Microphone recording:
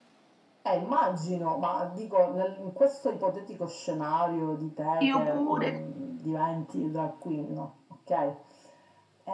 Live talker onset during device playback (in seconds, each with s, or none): 5.1 s